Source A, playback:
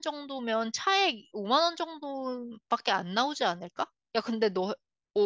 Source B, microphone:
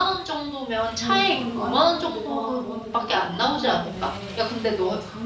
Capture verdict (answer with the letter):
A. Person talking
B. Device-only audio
A